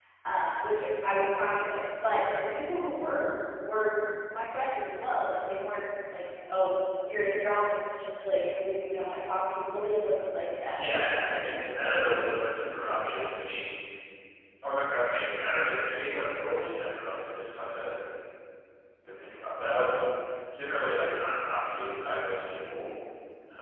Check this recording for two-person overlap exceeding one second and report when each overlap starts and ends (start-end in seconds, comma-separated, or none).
10.8-12.1